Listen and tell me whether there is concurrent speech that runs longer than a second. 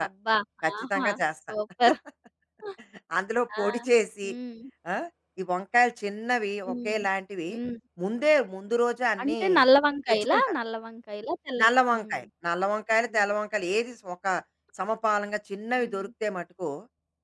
No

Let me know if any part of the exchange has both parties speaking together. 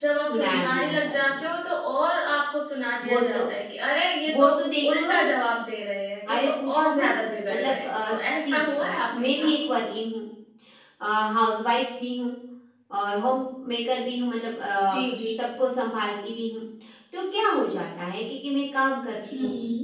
Yes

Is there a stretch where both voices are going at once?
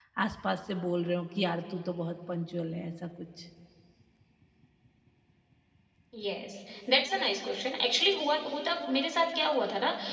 No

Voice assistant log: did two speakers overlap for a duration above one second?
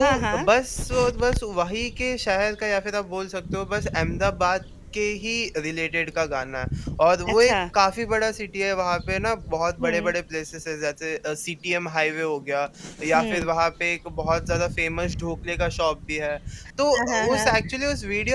No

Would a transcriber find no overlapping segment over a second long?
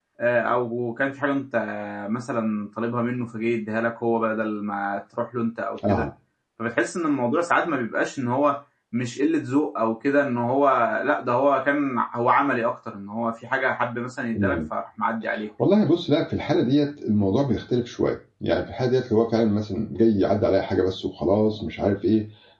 Yes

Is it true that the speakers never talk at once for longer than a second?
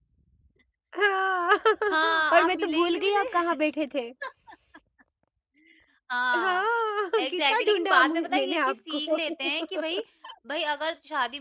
No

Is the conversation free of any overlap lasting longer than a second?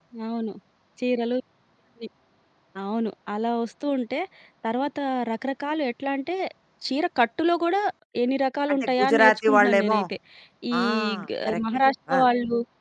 No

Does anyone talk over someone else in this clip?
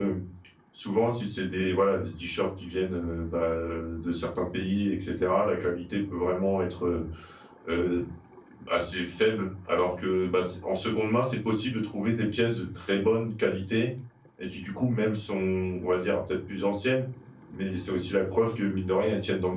No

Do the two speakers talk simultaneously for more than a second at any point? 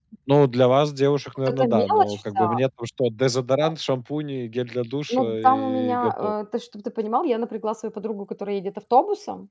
Yes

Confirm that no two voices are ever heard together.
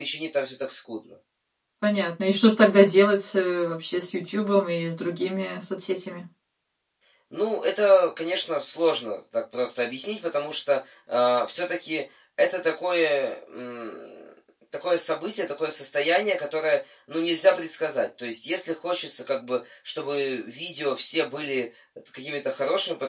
Yes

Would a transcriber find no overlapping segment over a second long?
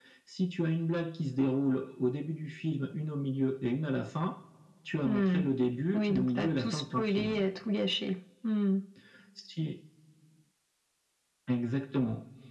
No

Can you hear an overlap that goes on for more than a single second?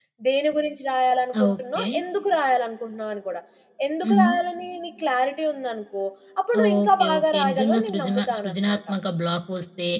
Yes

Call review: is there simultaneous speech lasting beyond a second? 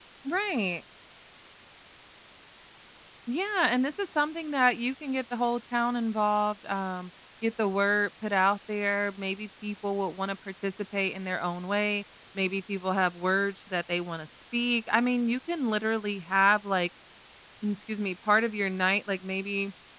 No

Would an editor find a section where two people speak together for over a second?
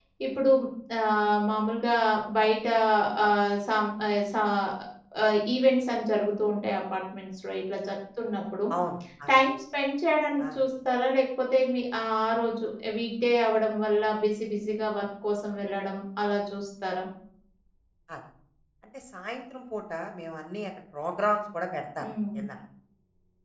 No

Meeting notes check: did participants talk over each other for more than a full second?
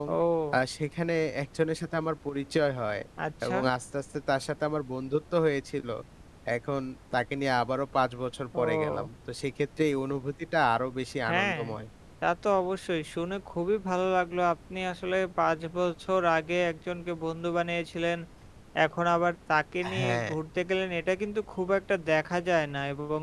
No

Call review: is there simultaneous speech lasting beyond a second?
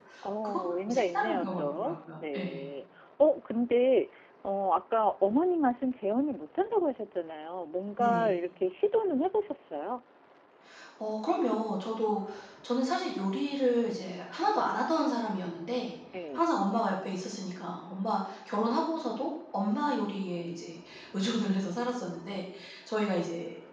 Yes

